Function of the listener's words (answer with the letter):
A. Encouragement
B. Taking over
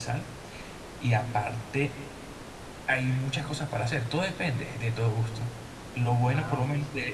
A